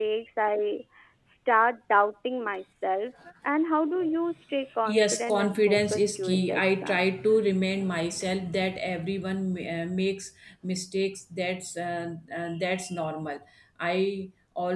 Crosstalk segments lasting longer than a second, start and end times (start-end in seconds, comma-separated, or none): 4.8-7.0